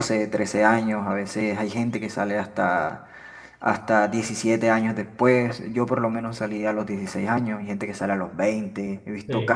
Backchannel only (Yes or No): Yes